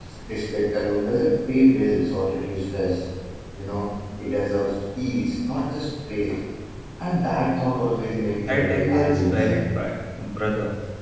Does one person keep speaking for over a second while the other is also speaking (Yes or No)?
Yes